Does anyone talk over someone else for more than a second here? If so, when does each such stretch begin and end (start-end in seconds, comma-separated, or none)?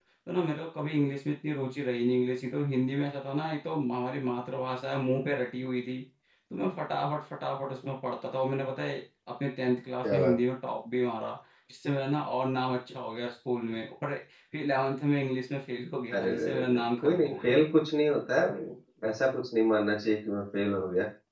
16.2-17.6